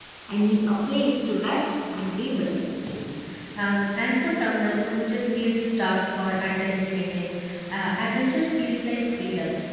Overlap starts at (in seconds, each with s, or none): none